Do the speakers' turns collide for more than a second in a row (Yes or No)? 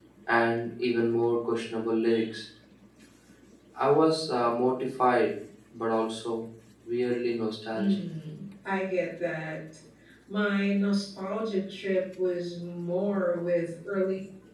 No